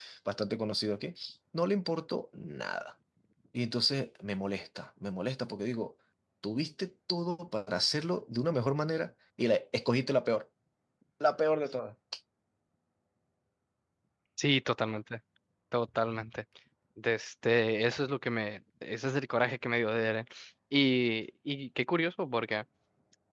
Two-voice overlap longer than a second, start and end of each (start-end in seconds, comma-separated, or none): none